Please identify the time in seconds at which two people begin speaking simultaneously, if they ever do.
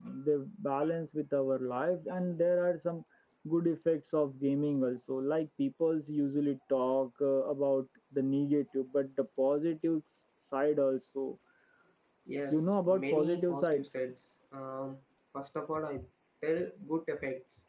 12.5 s

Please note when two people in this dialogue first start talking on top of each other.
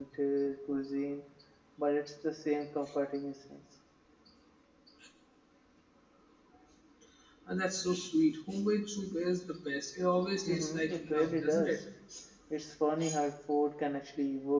10.4 s

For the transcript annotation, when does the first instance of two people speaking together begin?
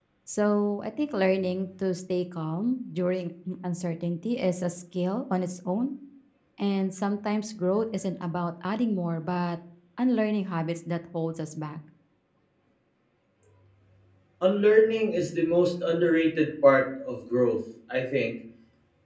none

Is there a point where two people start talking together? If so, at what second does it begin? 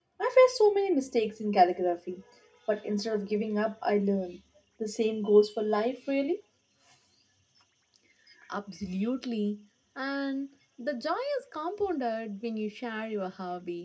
none

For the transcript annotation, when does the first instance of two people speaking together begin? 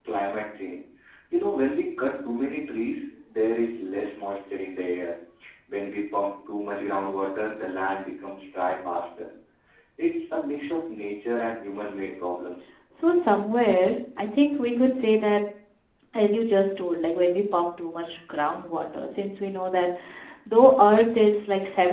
none

